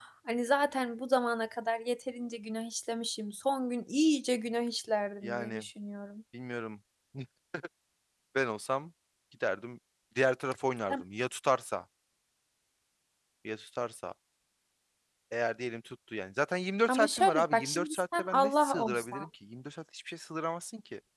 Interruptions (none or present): present